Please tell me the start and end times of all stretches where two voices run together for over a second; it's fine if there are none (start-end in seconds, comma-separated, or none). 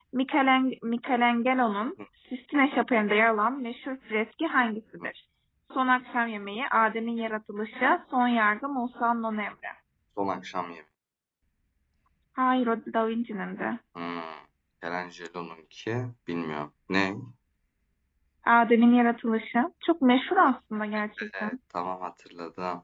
none